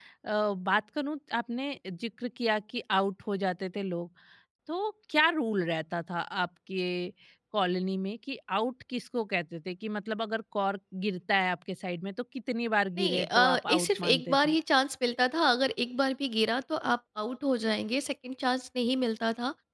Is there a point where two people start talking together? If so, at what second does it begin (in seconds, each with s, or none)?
13.0 s